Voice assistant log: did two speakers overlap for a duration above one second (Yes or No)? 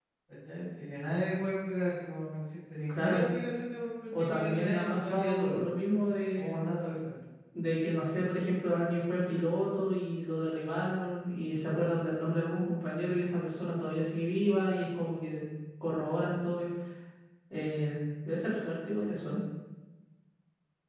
Yes